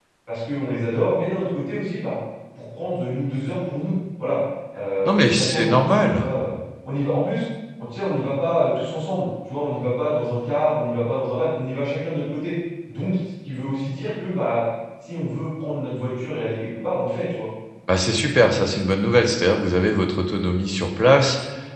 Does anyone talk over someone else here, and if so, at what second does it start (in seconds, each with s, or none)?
5.0 s